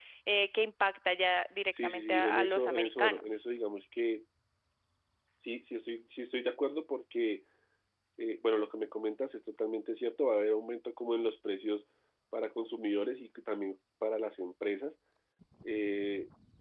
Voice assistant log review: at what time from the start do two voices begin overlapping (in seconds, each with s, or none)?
1.7 s